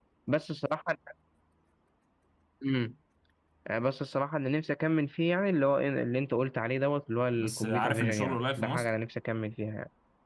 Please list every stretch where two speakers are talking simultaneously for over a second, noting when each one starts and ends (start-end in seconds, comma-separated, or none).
7.4-8.9